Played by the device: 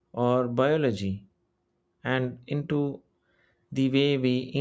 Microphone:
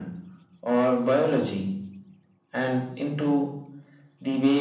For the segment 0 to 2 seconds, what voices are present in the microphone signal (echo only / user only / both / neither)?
echo only